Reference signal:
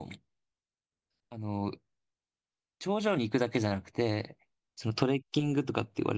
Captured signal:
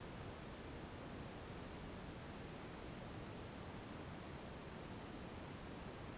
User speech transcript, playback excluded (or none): none